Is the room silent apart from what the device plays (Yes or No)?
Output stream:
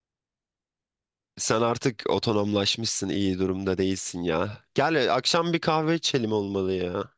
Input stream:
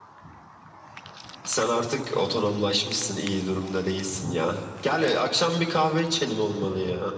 Yes